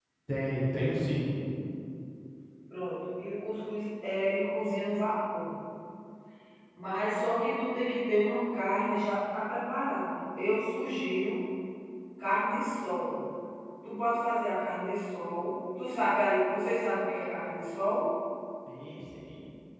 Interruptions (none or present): none